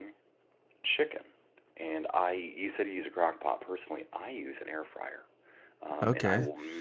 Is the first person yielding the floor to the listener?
No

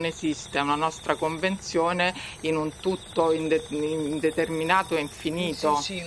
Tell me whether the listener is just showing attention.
No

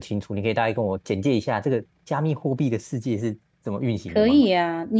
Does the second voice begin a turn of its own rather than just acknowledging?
Yes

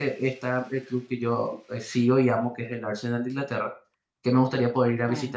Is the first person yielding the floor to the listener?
No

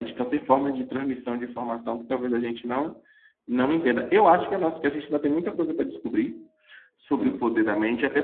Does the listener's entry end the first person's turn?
No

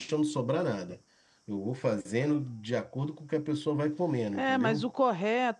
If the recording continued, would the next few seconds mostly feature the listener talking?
Yes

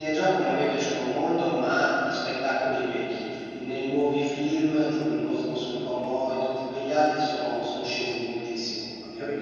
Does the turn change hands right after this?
Yes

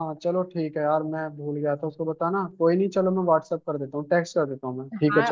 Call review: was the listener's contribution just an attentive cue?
No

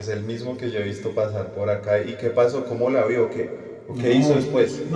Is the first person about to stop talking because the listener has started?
Yes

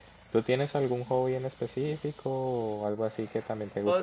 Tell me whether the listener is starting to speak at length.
Yes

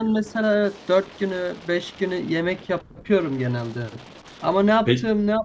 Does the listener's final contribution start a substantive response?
No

